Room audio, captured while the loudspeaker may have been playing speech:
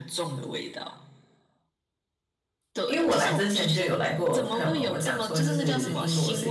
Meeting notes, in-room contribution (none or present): present